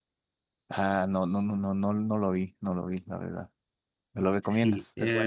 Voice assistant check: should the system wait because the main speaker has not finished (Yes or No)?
No